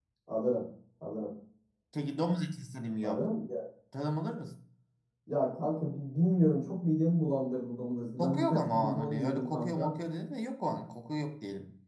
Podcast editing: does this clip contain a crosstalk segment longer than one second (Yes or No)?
Yes